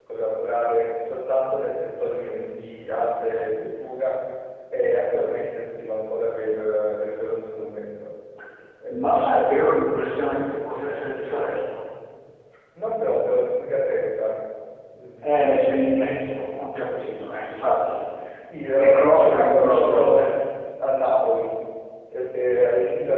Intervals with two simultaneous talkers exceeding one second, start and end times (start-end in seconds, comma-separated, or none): 18.8-20.4